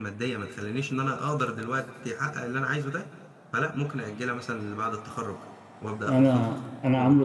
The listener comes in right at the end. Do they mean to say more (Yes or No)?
Yes